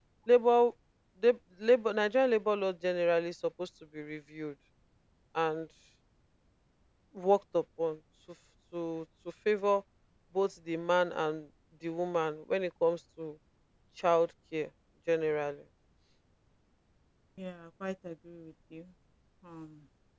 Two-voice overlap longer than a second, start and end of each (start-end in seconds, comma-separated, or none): none